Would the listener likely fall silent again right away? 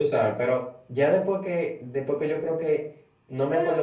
Yes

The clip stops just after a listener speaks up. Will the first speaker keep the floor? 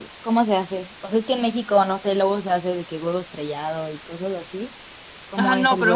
No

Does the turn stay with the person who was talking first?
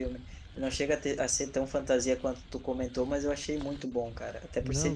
Yes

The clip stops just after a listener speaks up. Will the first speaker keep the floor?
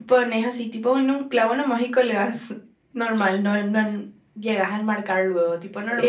No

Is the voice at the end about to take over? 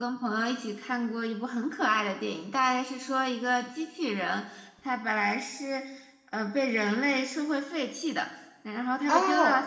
No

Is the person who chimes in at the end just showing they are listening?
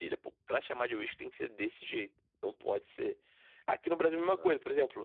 Yes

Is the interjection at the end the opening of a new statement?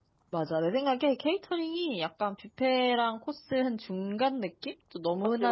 No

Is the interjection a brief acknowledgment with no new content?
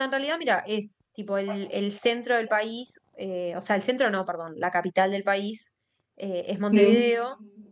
Yes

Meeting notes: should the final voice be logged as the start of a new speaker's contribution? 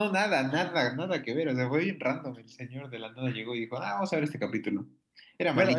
Yes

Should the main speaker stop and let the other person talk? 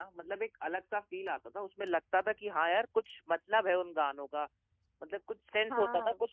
No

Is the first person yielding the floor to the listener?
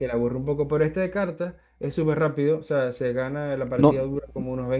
No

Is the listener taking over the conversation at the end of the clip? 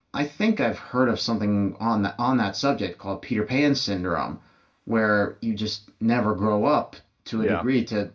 No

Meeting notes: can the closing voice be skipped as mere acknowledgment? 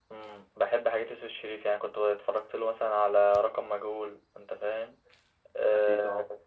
Yes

